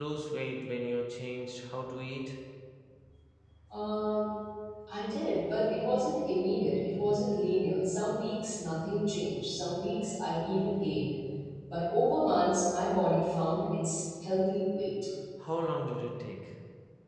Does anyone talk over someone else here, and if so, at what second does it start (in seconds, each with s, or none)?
none